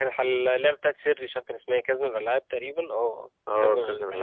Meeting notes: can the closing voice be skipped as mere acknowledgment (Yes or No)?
No